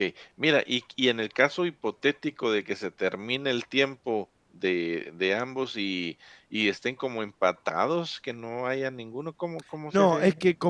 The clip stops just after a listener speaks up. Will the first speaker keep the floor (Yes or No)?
No